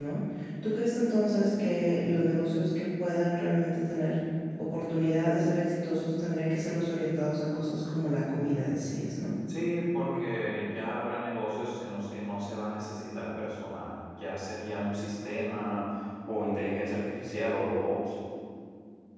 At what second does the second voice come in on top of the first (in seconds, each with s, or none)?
none